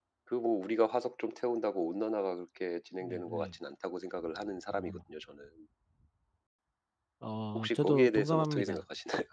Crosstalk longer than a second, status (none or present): present